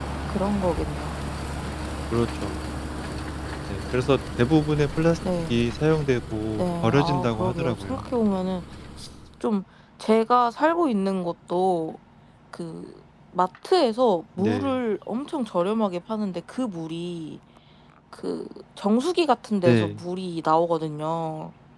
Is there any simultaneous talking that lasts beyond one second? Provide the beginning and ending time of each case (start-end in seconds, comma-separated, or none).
6.6-8.1